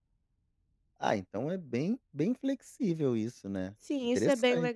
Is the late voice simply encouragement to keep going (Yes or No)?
No